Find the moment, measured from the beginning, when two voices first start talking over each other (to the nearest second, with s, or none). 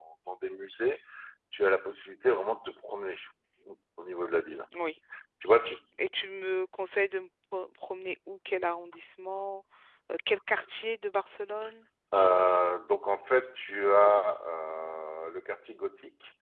none